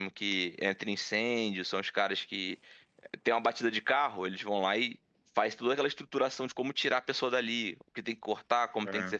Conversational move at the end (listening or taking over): listening